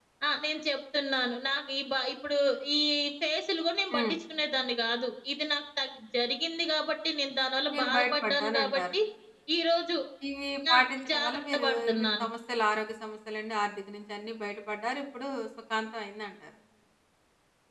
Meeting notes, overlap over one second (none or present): present